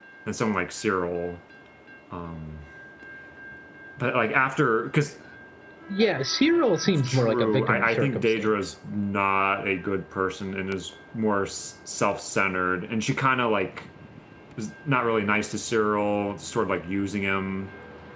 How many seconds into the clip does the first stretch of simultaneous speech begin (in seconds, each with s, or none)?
6.8 s